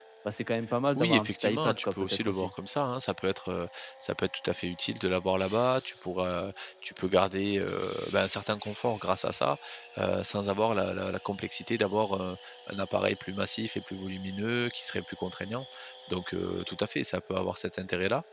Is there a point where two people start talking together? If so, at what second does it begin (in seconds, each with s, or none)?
0.9 s